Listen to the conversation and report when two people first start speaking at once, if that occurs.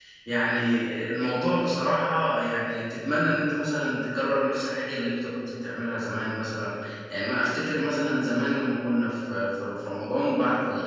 none

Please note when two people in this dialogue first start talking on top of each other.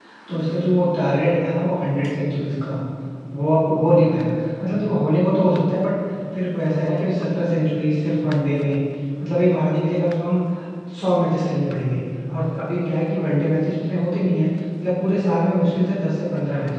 none

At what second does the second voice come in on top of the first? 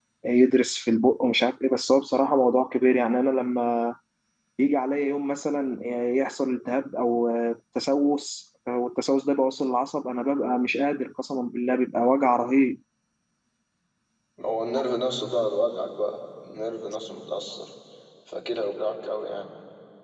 none

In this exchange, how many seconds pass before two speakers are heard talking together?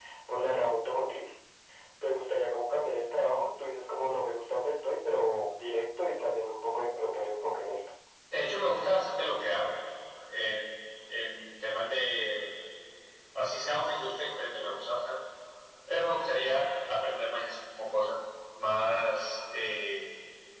none

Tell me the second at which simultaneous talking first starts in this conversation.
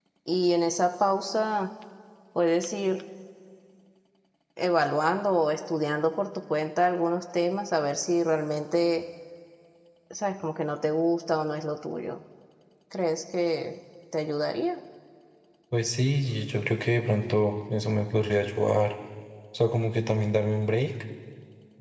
none

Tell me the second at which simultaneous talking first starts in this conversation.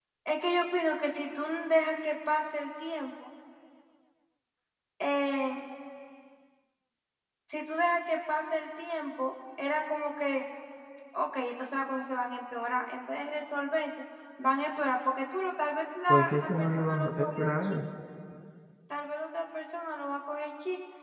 16 s

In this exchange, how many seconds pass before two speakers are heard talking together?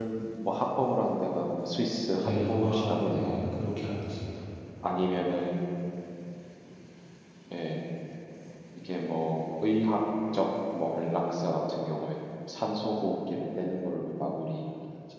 2 s

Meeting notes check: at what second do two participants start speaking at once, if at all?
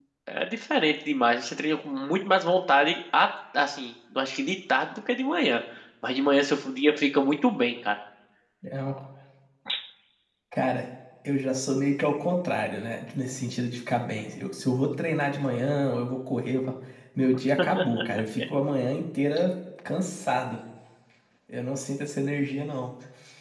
none

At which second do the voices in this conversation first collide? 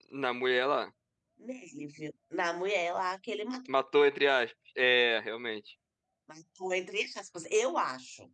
none

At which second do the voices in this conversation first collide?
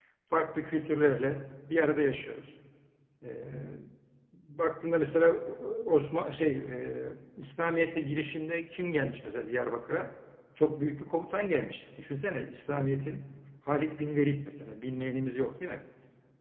none

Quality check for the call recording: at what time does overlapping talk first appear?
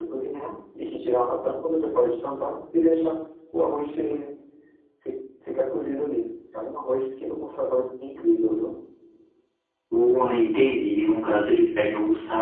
none

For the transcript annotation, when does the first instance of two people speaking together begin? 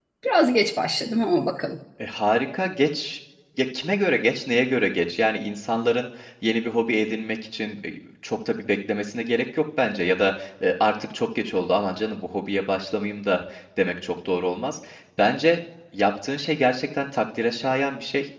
none

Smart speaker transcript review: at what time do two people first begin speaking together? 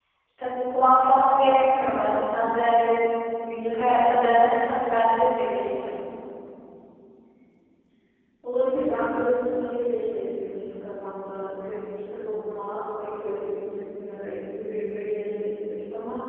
none

